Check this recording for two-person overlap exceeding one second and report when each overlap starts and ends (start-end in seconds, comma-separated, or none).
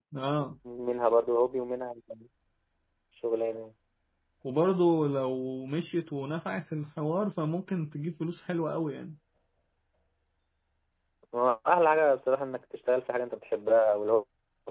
none